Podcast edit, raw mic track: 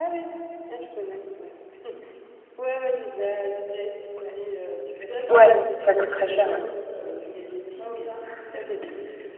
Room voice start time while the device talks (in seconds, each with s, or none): 5.3 s